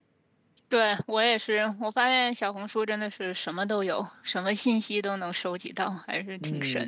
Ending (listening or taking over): taking over